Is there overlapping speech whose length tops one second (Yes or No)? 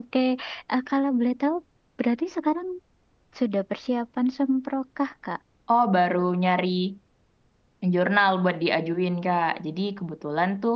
No